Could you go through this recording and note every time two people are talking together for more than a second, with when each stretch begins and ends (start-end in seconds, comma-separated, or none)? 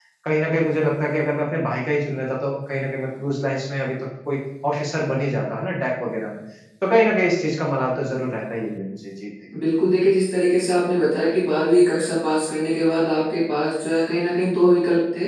none